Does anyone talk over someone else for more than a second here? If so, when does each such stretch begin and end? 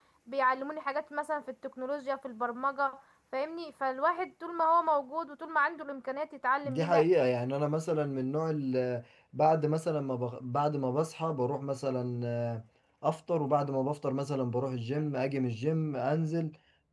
none

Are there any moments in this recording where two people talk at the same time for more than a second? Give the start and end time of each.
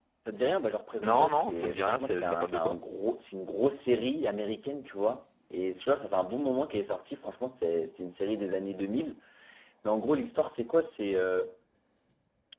1.0-2.8

